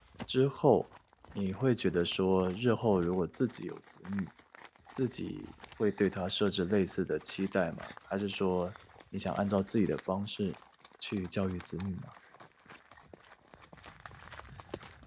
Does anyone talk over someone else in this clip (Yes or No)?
No